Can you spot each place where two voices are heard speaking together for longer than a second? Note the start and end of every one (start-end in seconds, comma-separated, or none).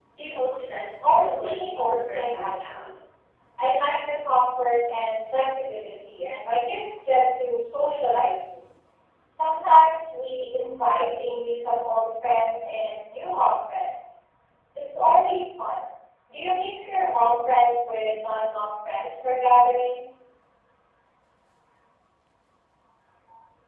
1.0-2.8